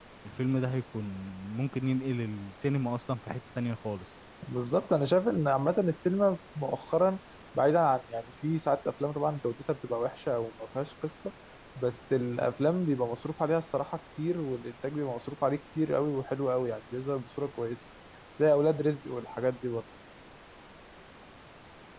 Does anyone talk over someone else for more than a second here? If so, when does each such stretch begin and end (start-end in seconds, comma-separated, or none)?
none